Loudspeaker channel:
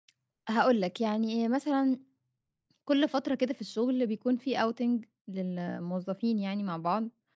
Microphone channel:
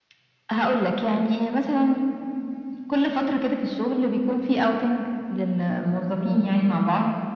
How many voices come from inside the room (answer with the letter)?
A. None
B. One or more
A